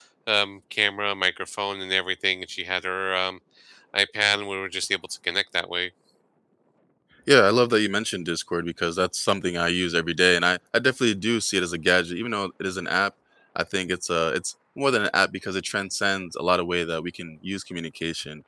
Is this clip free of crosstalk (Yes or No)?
Yes